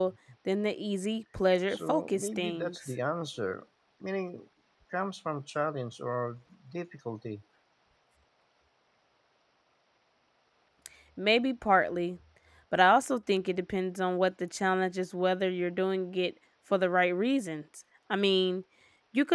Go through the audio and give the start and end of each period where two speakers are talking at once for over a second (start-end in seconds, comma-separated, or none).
1.7-2.9